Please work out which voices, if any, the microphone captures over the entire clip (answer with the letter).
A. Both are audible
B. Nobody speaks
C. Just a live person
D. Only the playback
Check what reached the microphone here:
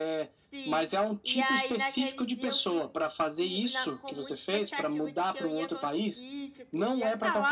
A